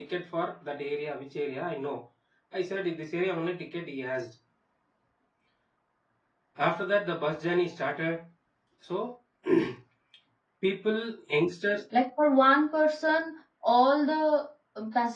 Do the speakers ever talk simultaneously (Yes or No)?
No